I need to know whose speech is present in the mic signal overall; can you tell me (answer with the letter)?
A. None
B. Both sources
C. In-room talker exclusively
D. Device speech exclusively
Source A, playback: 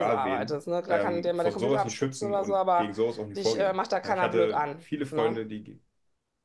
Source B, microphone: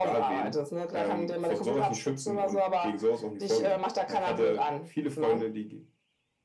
D